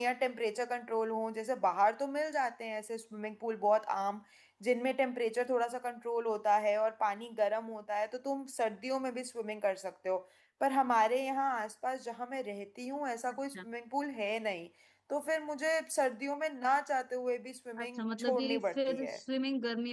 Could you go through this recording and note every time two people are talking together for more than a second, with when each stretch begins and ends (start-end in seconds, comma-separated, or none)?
17.8-19.2